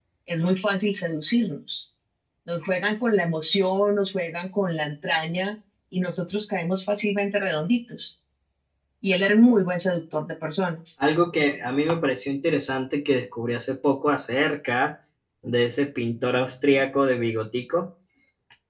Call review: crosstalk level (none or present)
none